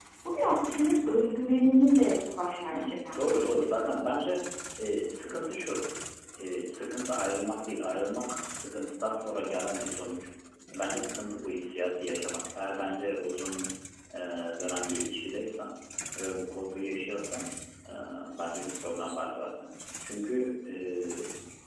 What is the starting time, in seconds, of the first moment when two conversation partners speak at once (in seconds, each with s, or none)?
2.7 s